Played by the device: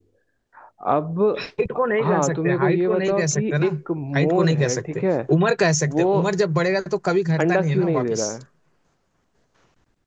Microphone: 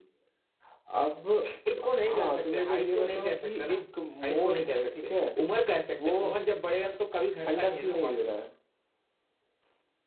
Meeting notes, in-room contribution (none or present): none